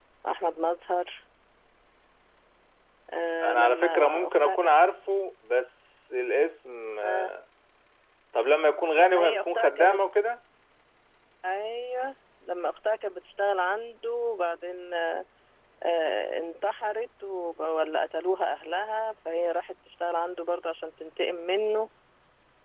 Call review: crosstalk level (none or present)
present